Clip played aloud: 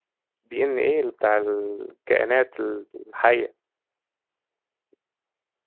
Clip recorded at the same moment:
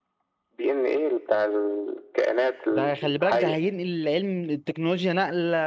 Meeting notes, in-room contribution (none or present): present